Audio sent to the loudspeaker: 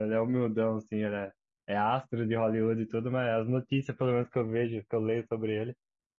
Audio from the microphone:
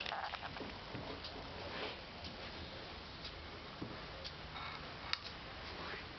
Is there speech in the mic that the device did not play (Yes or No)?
No